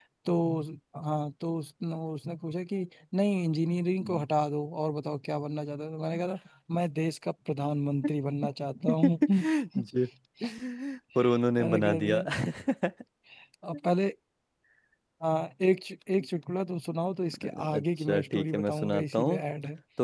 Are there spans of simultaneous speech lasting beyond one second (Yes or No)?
Yes